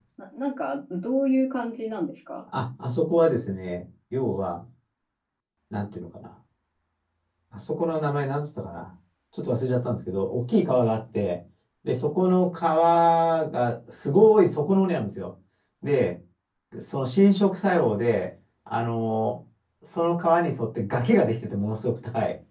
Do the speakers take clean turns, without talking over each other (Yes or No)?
Yes